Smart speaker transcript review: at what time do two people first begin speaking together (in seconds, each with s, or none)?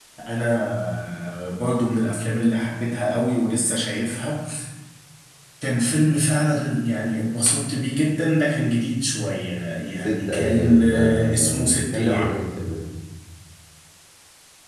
10.0 s